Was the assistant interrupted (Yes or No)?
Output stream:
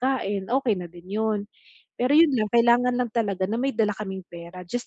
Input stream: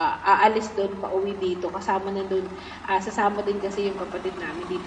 Yes